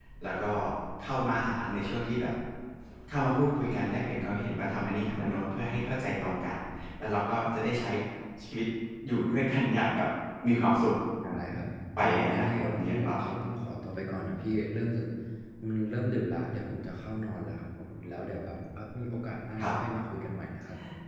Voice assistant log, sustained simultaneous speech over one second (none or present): present